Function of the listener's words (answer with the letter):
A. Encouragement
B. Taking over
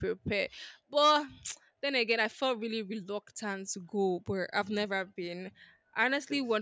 A